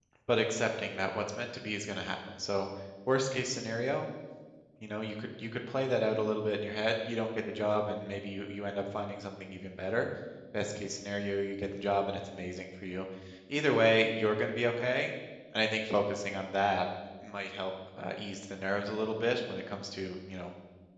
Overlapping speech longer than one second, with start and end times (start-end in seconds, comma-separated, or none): none